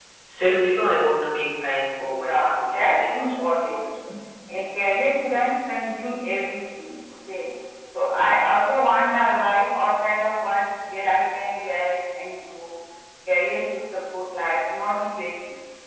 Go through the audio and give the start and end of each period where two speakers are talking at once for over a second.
2.0-3.8

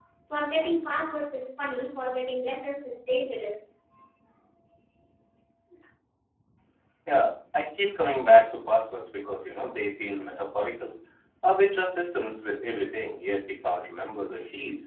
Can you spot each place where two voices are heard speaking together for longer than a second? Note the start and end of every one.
none

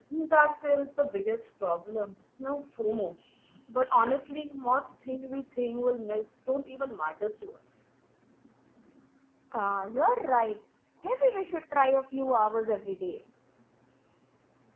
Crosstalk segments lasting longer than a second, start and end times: none

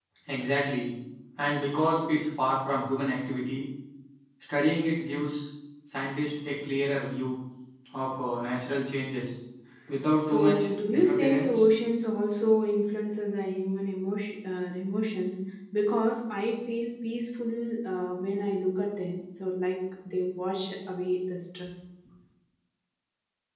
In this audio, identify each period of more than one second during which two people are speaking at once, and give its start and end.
10.2-11.6

